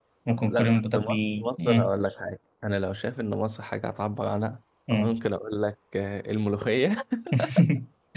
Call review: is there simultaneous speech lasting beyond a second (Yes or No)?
Yes